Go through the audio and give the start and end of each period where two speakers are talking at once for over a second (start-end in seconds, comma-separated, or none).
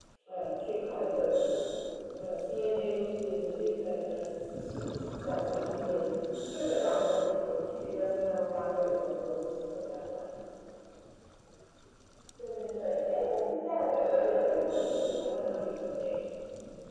13.9-15.2